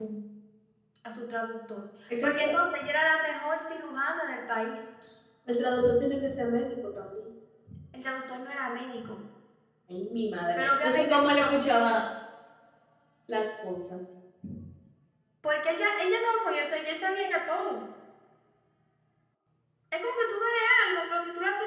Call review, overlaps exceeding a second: present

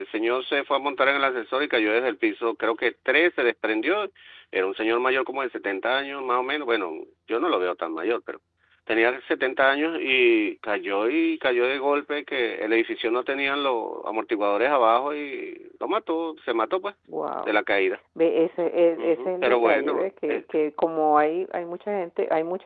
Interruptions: present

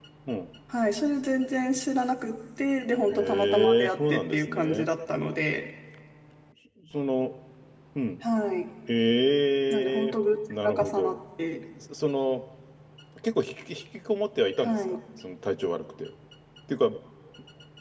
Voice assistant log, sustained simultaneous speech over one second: present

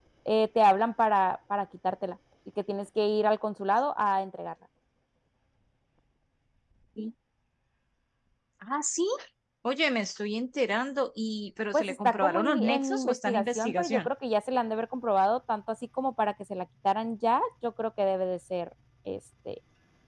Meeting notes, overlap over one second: present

